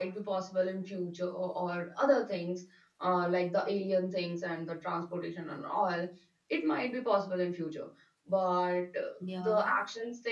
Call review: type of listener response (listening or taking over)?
listening